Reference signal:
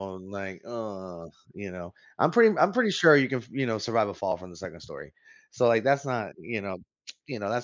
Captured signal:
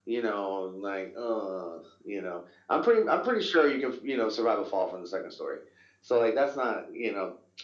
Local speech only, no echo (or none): none